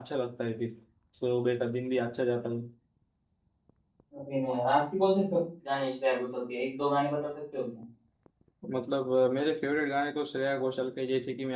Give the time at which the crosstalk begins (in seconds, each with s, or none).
none